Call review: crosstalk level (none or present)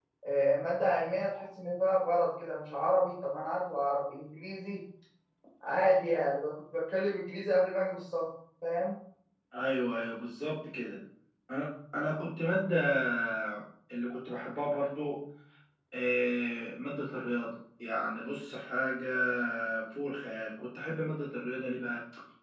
none